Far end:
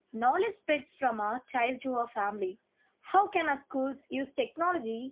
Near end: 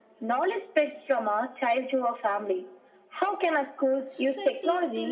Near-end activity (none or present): present